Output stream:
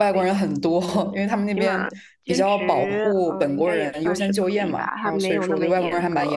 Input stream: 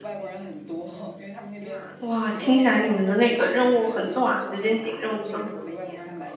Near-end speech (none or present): present